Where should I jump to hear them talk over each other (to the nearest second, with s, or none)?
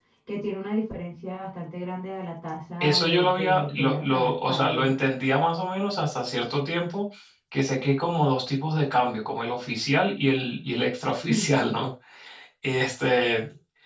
3 s